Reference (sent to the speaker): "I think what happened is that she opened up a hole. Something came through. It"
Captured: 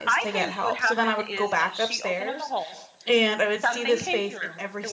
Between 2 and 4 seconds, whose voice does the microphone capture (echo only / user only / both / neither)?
both